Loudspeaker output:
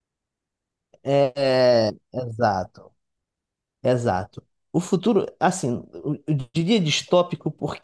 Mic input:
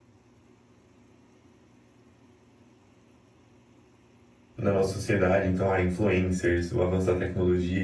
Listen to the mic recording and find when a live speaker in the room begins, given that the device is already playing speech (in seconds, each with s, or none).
4.6 s